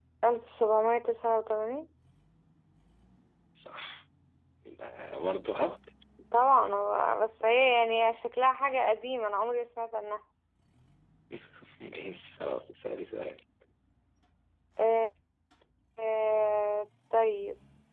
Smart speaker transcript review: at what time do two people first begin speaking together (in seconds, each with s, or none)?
none